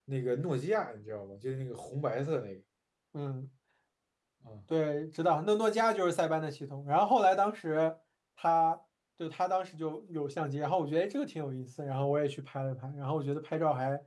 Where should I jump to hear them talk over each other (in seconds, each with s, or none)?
none